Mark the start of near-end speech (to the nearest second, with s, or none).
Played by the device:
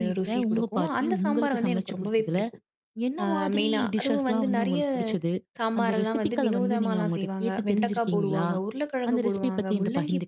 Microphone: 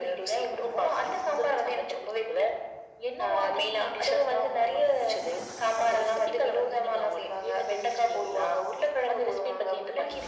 none